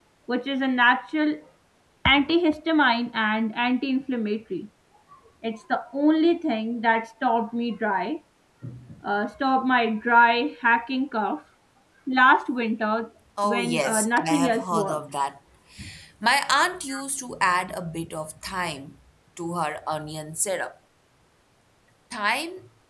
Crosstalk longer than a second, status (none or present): present